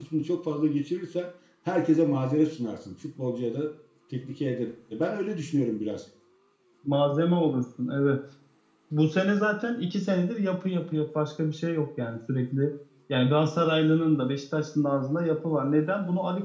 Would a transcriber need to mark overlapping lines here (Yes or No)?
No